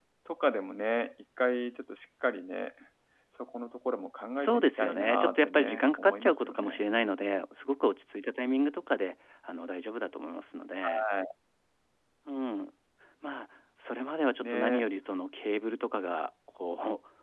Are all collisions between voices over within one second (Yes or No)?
No